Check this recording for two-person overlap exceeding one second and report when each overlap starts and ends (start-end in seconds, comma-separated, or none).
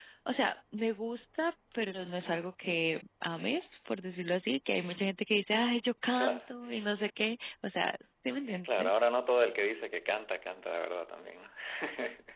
none